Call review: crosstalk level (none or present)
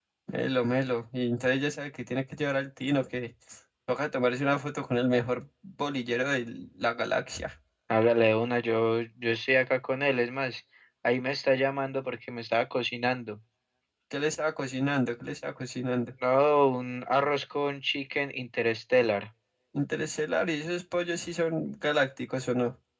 none